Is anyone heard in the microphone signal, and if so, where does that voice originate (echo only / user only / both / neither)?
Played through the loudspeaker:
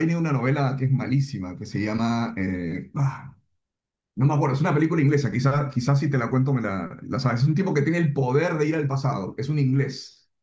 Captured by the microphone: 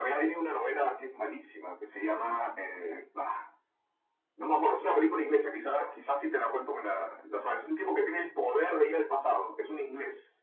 echo only